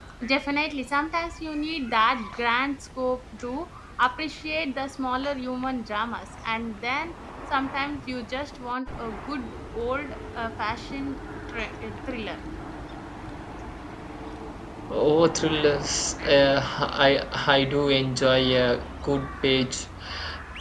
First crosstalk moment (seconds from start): none

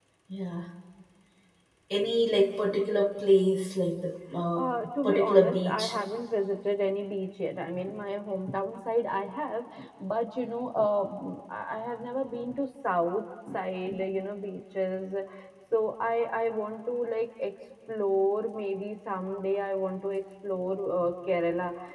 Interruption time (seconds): 4.5 s

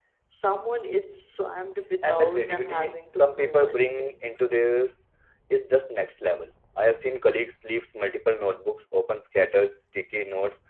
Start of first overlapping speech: 2.0 s

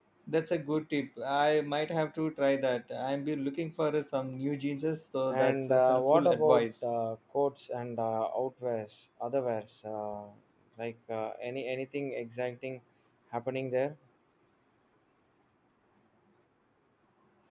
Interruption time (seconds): 5.3 s

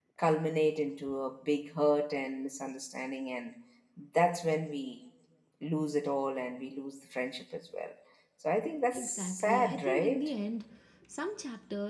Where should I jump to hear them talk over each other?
8.9 s

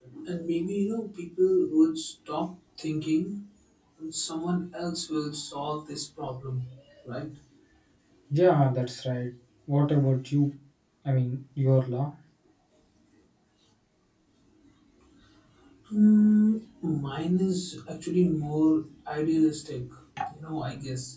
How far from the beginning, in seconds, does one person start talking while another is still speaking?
none

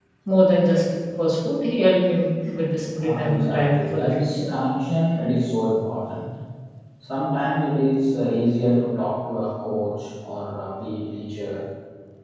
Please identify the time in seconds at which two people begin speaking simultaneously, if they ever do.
3.0 s

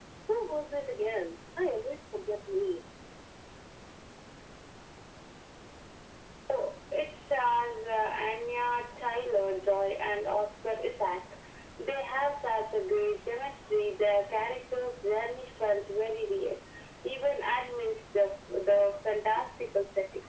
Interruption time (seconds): none

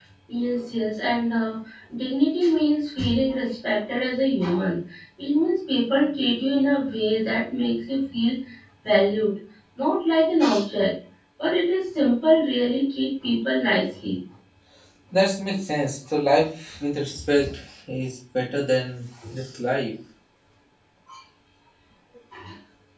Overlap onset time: none

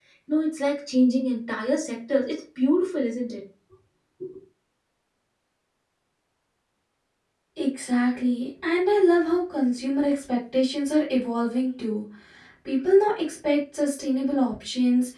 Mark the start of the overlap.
none

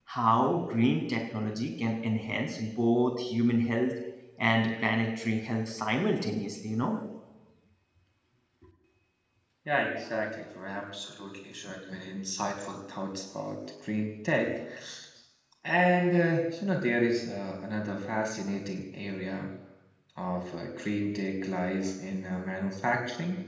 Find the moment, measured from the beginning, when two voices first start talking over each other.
none

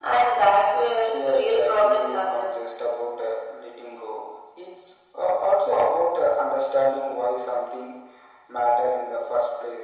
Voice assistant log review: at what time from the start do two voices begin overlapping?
1.3 s

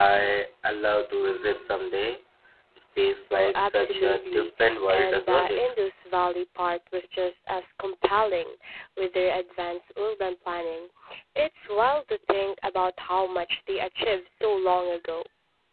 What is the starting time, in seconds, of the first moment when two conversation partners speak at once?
3.3 s

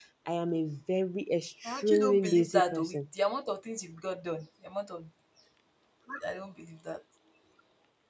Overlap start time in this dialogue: 1.6 s

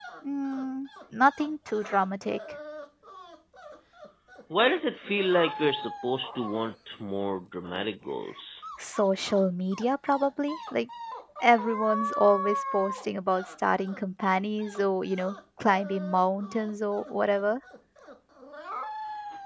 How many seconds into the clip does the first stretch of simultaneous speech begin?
none

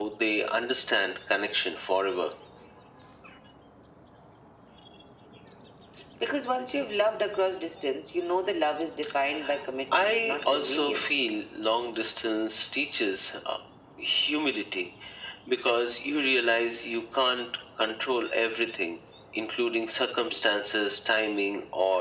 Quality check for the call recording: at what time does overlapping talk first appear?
10.0 s

